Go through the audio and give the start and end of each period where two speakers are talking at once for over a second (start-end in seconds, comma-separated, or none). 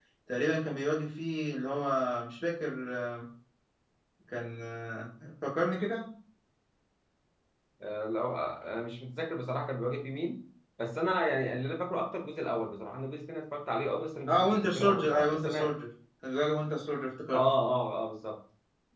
14.3-15.7